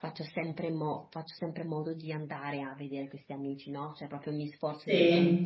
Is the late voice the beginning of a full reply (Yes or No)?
No